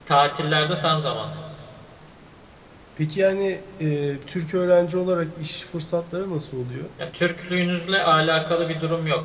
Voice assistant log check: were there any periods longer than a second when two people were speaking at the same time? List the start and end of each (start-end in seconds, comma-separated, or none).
none